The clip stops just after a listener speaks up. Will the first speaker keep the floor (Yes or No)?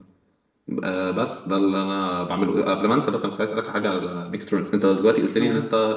Yes